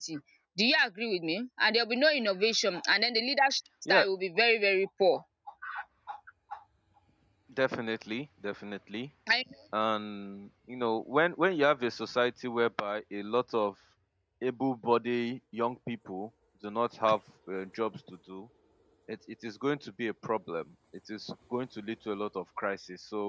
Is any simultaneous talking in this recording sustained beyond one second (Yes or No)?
No